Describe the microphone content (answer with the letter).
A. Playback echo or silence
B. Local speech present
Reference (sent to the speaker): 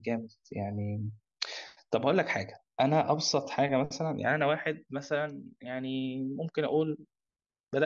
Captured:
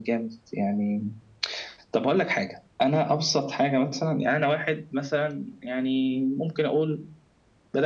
A